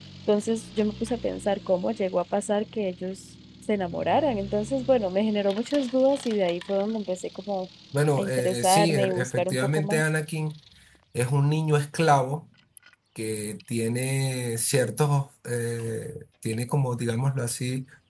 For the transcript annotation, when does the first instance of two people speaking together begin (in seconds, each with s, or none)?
8.2 s